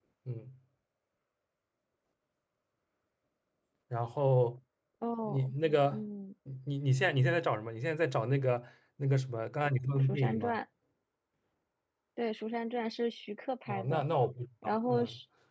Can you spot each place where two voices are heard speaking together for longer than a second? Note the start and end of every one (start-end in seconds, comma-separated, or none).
none